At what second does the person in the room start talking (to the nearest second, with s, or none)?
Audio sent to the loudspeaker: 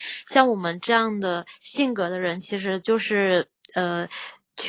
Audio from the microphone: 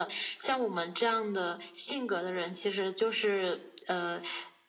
none